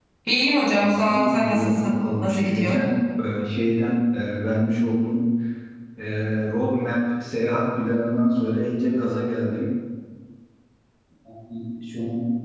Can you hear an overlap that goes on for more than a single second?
Yes, from 0.7 s

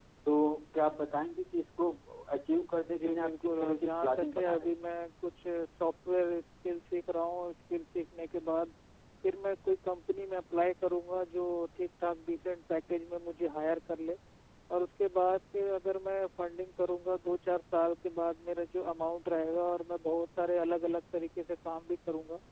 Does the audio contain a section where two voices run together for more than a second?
Yes, from 3.0 s

